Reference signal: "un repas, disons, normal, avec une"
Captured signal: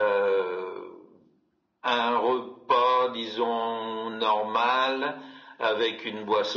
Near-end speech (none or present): none